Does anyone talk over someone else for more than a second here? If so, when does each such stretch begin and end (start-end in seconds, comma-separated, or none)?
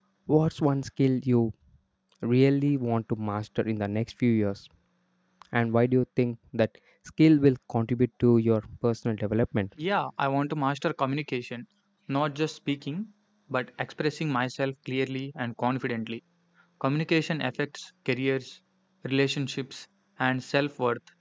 none